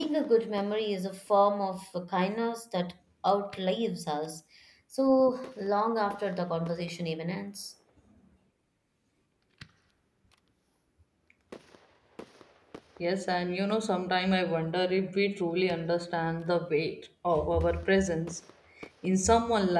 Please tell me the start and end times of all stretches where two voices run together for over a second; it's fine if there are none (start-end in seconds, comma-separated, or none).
none